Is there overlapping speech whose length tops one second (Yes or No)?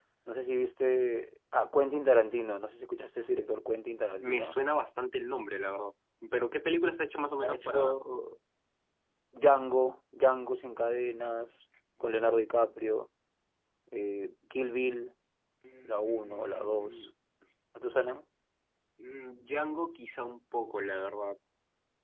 Yes